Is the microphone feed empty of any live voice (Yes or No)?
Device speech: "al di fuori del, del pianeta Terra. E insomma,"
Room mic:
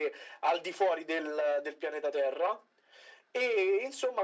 Yes